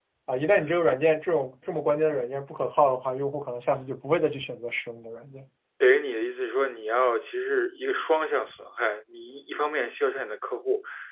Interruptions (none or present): none